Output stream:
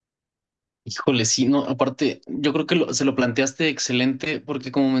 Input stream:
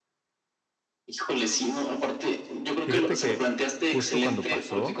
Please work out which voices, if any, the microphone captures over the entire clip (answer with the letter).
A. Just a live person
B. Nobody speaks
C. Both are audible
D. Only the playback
C